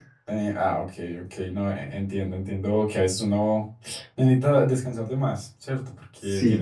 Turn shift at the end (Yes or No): No